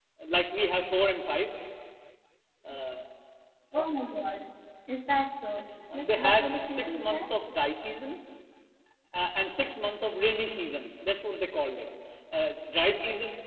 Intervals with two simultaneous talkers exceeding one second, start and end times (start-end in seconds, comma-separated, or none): 6.0-7.2